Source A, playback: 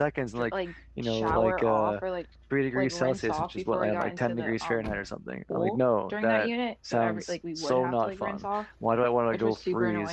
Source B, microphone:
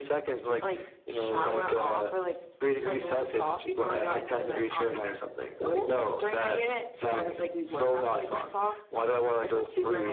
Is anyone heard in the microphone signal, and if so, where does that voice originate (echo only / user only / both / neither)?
echo only